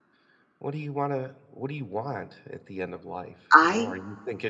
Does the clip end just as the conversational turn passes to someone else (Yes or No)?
No